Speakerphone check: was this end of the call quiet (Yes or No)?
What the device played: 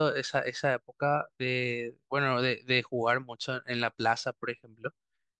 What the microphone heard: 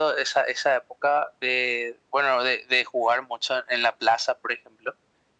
Yes